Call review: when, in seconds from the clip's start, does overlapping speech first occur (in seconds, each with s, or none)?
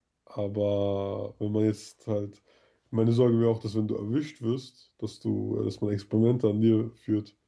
none